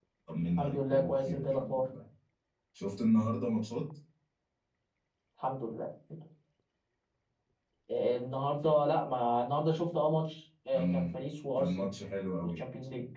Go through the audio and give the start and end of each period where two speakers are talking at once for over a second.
0.6-1.9

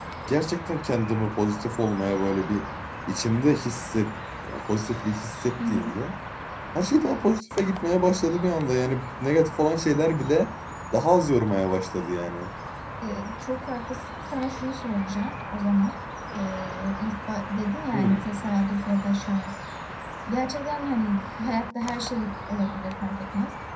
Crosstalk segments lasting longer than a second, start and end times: none

